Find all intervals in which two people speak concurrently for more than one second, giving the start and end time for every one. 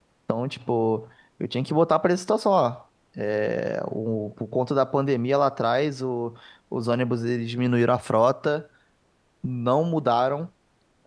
none

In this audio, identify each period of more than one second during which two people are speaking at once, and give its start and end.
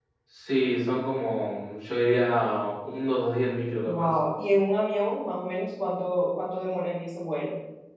none

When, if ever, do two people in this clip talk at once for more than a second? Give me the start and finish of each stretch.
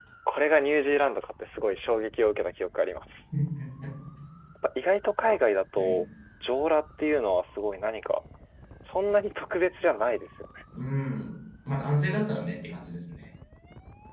none

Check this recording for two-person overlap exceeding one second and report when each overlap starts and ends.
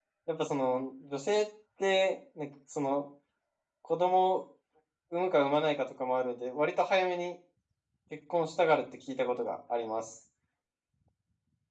none

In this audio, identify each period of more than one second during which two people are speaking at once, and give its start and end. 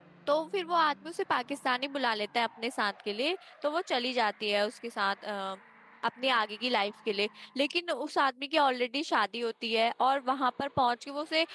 none

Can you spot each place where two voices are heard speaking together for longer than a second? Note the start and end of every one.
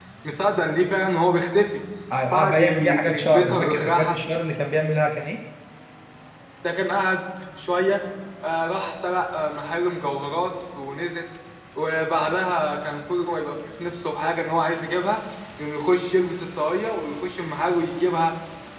2.3-4.2

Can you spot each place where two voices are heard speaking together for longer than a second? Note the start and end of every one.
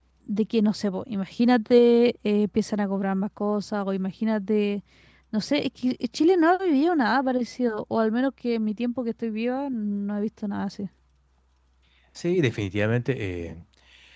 none

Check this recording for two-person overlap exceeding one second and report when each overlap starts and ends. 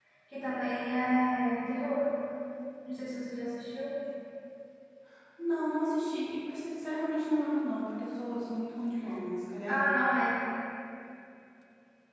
none

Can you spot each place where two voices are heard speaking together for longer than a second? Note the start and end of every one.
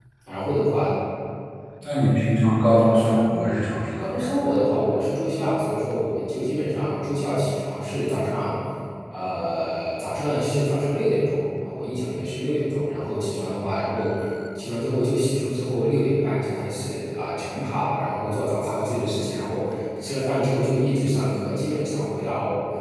none

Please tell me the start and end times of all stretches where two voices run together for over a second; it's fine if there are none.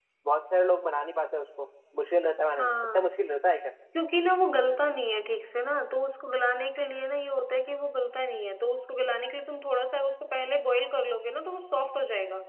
none

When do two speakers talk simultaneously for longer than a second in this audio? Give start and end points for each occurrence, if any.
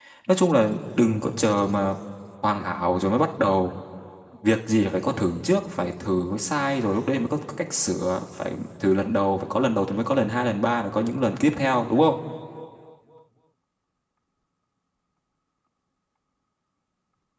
none

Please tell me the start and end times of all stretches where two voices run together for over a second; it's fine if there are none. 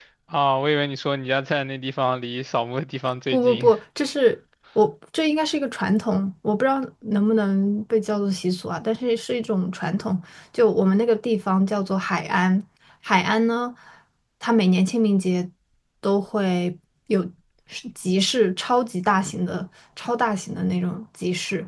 none

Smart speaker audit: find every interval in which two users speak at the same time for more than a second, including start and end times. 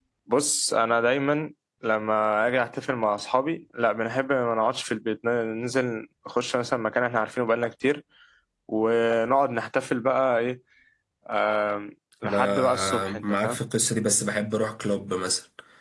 12.2-13.6

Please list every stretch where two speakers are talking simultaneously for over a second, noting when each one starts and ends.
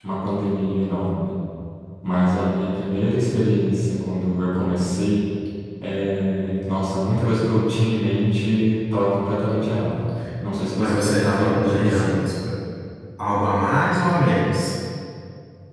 10.8-12.2

